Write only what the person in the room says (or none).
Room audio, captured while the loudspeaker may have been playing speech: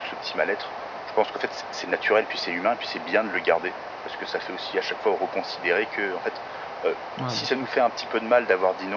Ah, bien sûr.